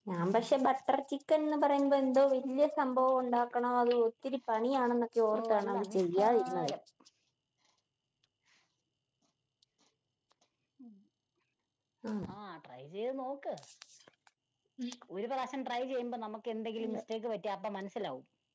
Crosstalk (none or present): present